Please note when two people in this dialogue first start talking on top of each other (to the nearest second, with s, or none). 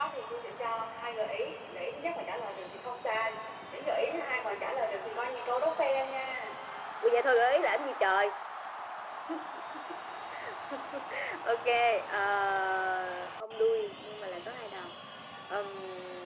none